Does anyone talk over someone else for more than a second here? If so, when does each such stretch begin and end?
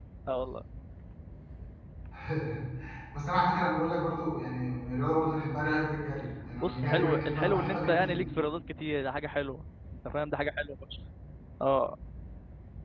6.6-8.2

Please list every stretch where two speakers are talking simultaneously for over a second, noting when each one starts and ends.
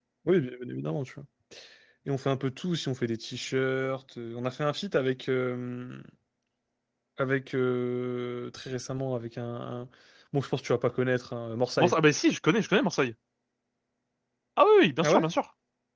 none

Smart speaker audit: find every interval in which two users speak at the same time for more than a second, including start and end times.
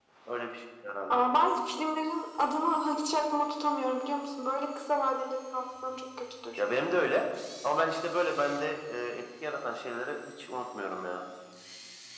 none

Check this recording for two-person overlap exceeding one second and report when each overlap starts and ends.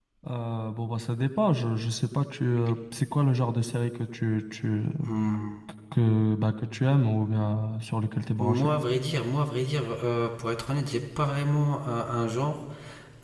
none

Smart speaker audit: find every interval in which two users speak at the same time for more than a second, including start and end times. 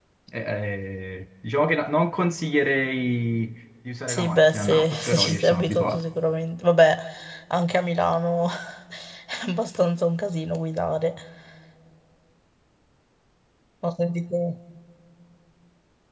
4.1-6.0

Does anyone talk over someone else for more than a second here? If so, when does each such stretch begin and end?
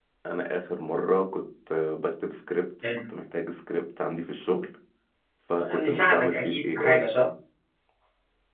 5.6-7.0

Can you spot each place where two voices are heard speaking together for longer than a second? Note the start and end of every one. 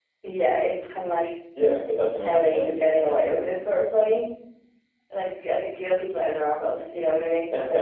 2.2-3.5

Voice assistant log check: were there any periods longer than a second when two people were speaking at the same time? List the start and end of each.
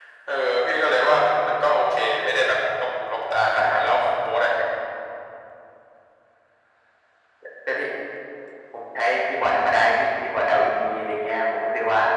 none

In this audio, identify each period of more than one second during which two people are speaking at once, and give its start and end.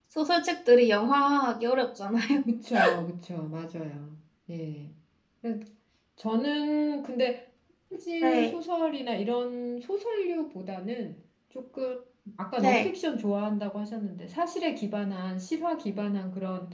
none

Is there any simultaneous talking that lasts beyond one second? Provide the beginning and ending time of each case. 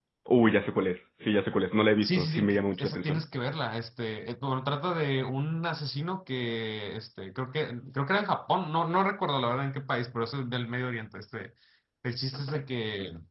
2.0-3.2

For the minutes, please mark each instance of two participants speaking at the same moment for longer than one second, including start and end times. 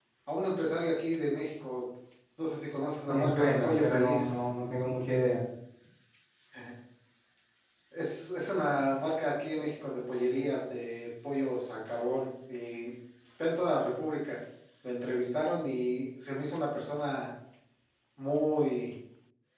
3.1-4.4

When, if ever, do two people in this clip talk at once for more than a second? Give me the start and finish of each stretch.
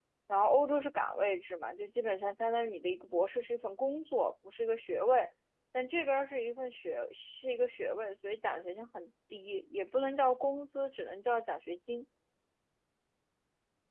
none

